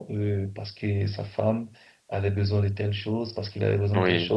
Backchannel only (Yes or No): No